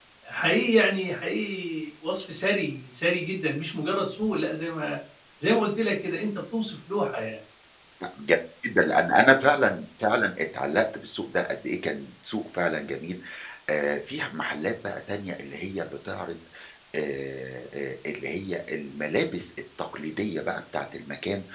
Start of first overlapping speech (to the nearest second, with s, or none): none